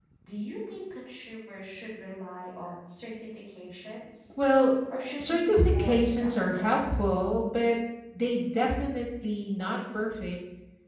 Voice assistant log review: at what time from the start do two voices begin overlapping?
5.2 s

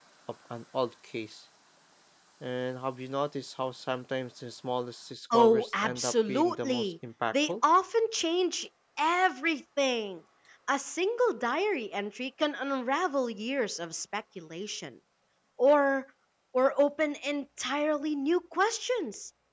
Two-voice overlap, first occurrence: 5.3 s

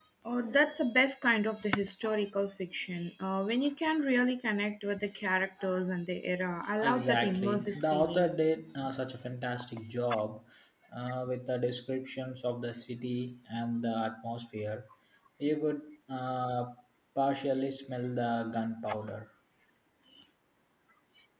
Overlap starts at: 6.8 s

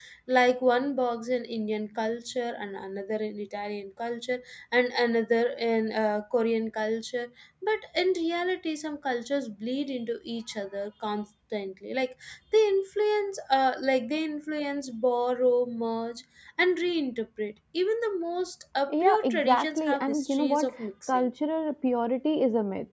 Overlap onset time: 18.9 s

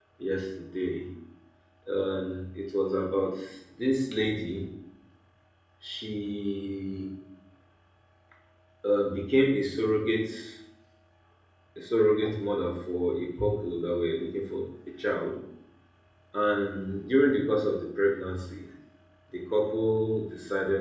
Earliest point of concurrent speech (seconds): none

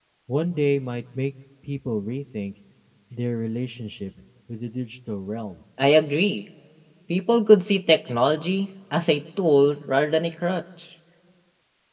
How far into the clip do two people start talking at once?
none

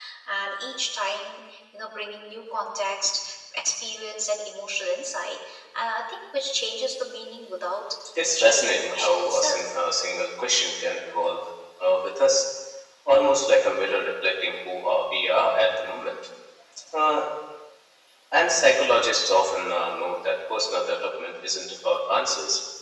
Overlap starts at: 8.4 s

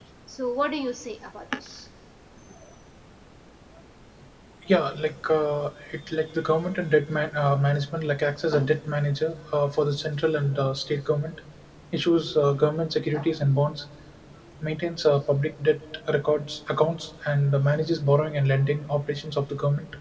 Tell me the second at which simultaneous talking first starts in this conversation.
none

